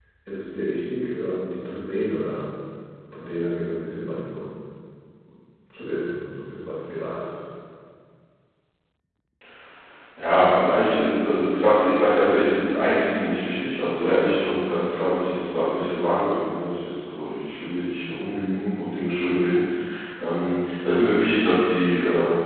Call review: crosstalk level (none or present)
none